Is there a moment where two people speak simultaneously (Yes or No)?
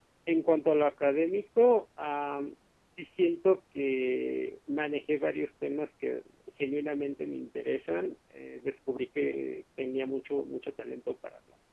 No